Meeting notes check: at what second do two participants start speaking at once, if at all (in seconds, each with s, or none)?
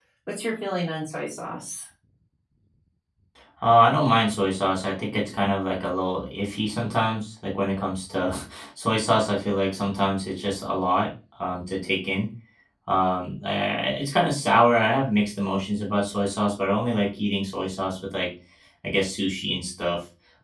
none